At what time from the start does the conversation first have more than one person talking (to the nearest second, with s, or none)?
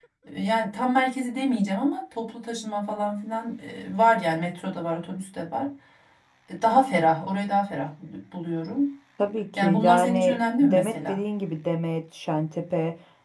10 s